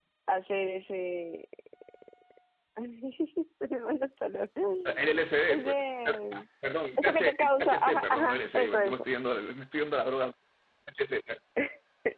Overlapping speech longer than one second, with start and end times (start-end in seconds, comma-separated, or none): 7.0-9.0